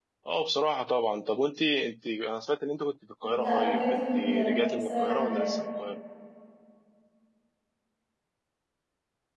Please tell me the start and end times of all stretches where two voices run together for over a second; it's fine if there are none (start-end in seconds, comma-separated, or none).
3.2-5.6